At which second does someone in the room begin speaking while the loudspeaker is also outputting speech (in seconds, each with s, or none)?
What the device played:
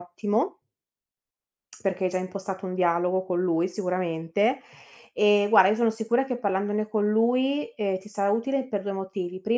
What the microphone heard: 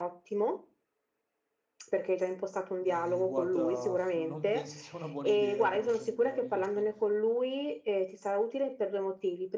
2.8 s